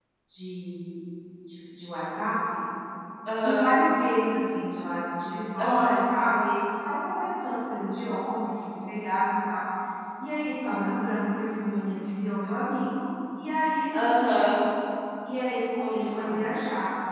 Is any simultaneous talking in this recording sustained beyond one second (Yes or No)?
No